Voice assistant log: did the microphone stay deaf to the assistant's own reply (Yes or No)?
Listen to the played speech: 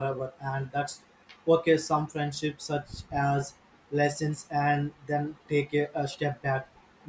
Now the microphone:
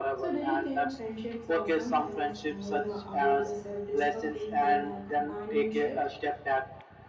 No